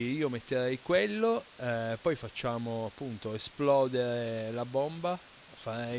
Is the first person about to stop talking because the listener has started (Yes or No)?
Yes